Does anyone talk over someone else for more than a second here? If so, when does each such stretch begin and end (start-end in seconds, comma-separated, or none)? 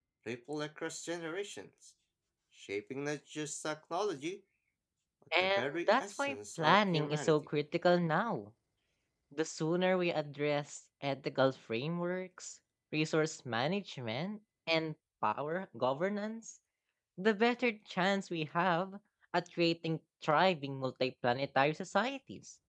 5.4-7.3